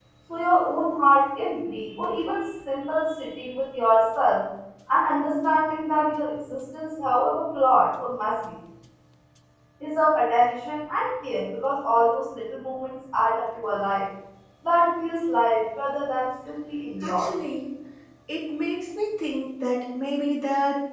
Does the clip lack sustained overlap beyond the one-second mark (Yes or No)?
Yes